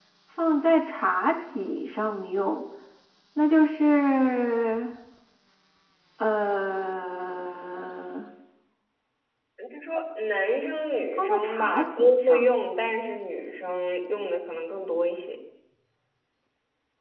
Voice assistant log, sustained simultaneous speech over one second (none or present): present